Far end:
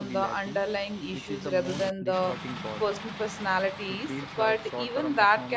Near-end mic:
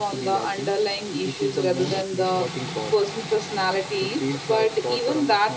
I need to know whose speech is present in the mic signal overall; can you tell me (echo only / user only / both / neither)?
echo only